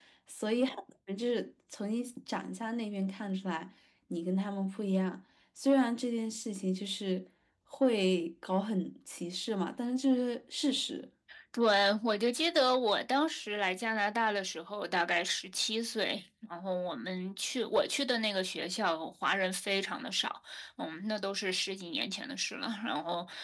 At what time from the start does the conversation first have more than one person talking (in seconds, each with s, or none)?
none